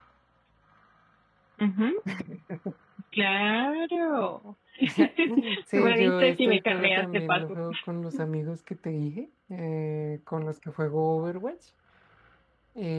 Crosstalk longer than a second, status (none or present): present